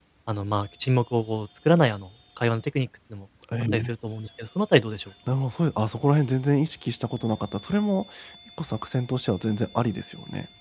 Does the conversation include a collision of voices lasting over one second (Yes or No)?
No